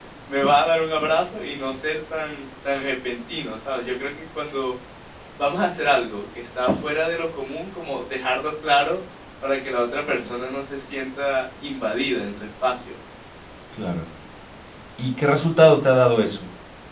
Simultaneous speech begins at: none

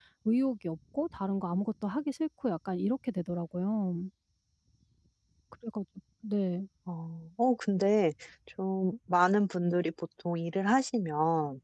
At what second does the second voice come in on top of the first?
none

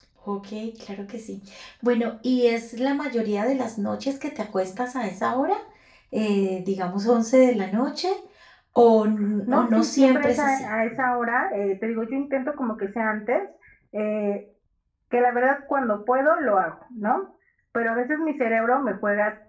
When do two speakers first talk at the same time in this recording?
9.5 s

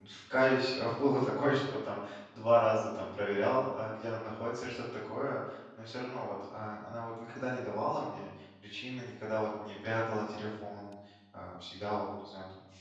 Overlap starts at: none

